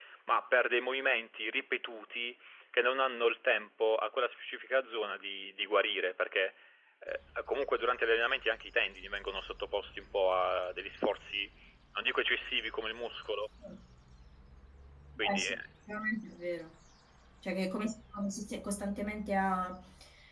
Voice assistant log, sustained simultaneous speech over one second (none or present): none